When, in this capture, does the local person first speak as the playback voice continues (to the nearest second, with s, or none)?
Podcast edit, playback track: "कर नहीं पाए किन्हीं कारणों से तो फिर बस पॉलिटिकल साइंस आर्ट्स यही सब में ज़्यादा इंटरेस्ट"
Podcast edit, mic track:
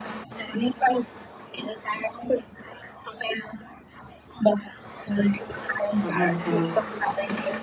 6 s